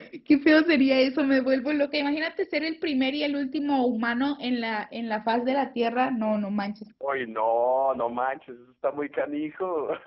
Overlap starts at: none

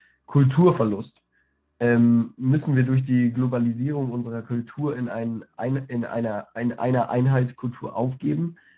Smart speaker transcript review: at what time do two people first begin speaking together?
none

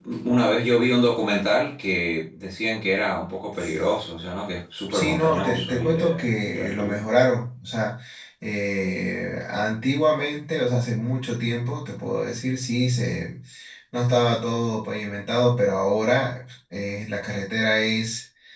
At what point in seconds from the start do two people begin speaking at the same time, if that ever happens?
4.9 s

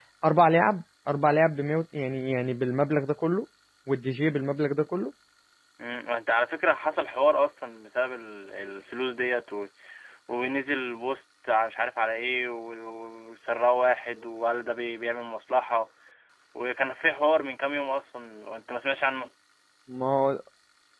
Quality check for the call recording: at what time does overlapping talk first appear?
none

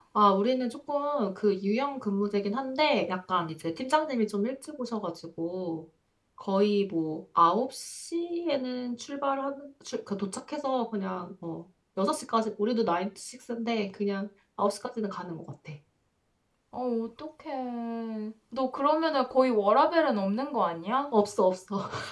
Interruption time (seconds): none

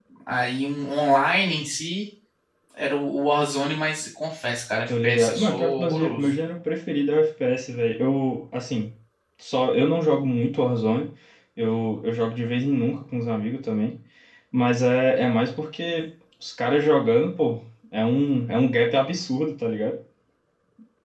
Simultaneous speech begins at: 4.9 s

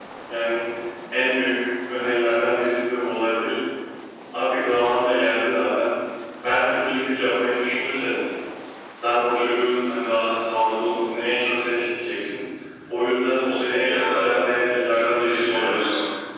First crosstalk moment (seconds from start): 13.8 s

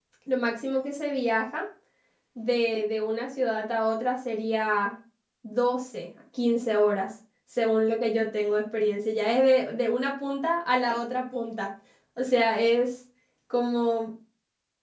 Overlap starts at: none

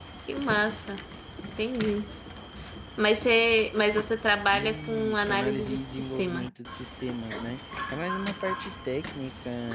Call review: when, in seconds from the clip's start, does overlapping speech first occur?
4.5 s

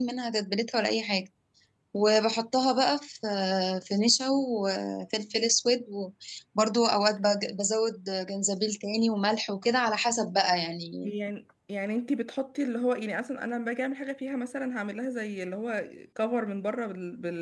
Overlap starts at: none

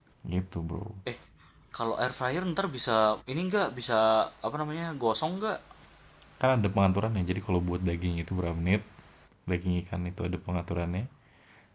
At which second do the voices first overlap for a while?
none

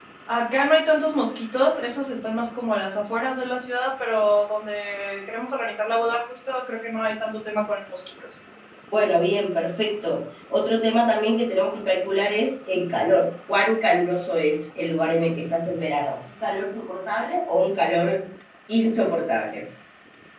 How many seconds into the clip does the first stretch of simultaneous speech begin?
none

